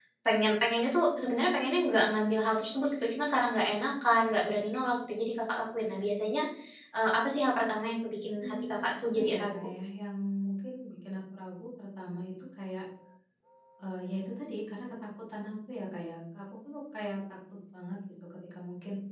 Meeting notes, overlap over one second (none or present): present